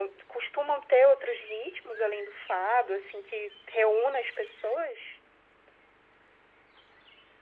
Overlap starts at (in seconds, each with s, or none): none